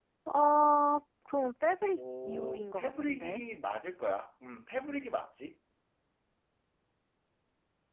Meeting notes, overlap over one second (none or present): present